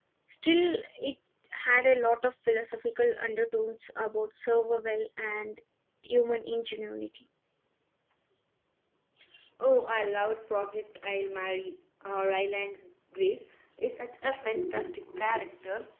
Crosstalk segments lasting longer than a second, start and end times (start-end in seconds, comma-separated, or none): none